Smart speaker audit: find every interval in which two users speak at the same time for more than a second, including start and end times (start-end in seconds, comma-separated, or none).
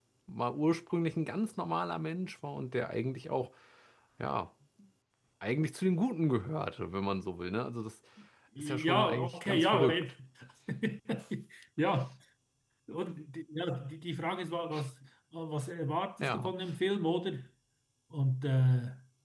8.6-10.1